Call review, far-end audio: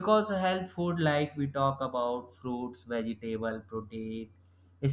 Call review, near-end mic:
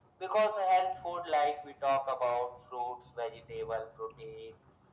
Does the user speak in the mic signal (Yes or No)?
No